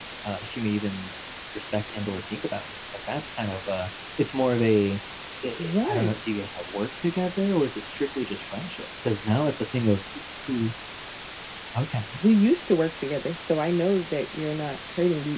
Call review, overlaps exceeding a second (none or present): none